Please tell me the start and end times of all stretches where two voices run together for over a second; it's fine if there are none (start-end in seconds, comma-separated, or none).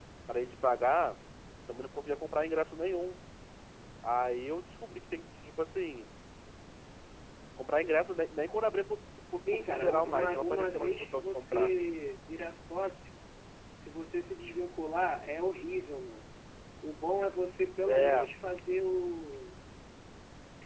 9.5-11.7